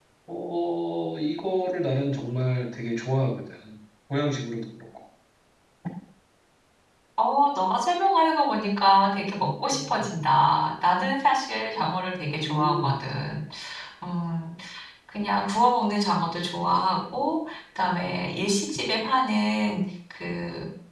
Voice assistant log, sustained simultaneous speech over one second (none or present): none